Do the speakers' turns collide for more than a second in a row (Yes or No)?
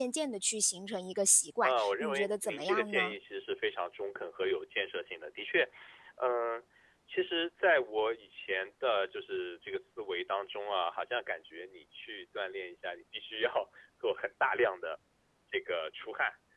Yes